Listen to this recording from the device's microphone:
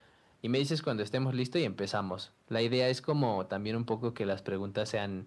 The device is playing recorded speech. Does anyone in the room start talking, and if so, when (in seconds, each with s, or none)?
none